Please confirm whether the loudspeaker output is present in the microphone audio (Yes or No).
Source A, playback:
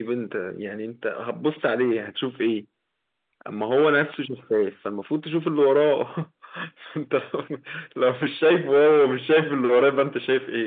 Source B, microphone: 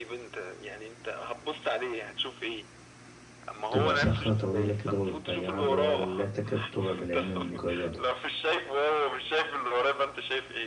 Yes